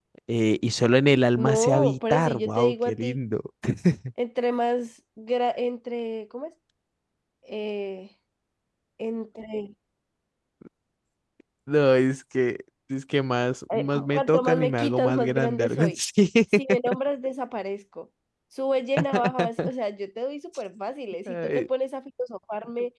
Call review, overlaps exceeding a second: present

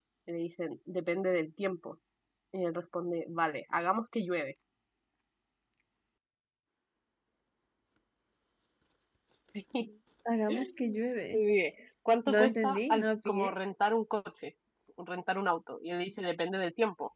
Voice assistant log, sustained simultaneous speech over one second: present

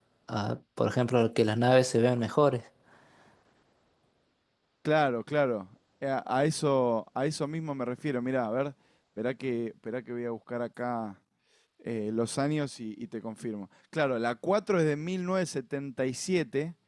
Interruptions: none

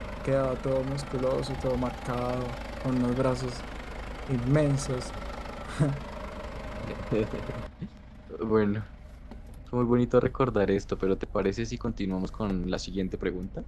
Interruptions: none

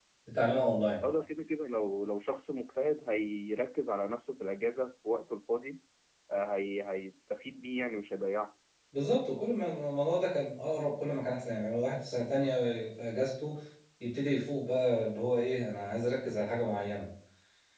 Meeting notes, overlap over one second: none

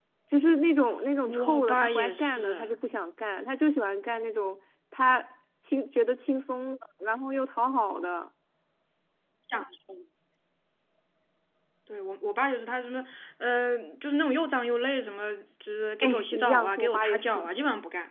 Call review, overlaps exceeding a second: present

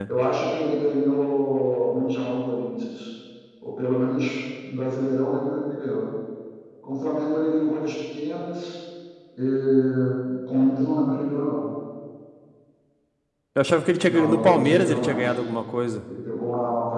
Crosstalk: present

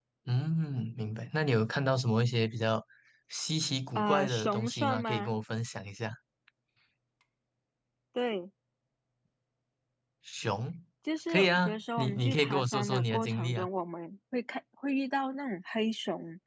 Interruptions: present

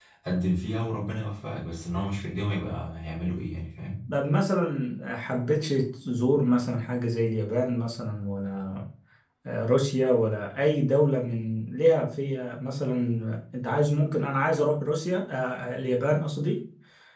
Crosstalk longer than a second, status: none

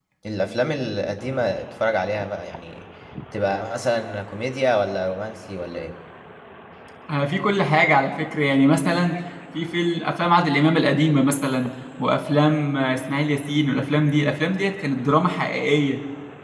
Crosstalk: none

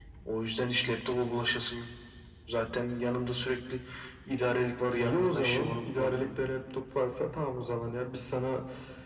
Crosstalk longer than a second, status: present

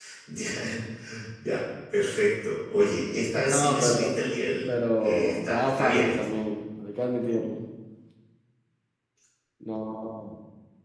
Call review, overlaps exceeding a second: present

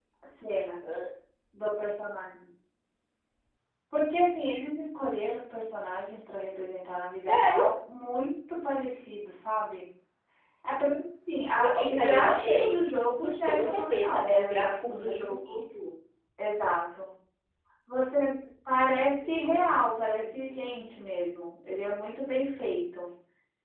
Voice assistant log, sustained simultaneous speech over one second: present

